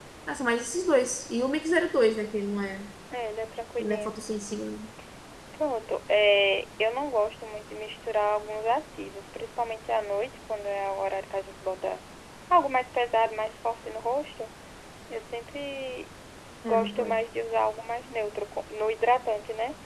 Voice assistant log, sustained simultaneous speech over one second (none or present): none